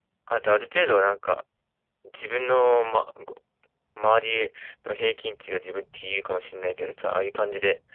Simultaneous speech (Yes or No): No